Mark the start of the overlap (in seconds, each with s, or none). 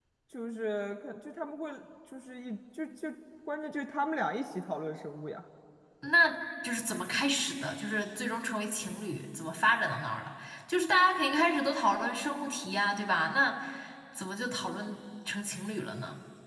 none